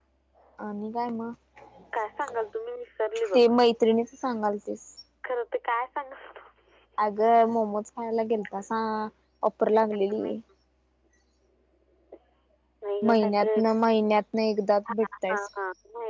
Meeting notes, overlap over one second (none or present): none